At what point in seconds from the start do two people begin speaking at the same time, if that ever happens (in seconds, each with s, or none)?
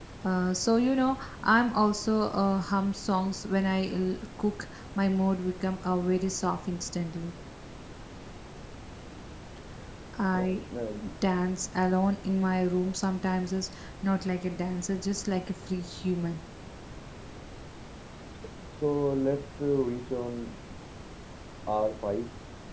none